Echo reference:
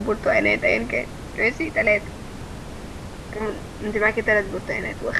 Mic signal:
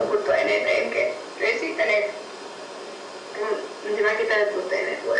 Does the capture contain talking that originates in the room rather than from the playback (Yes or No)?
No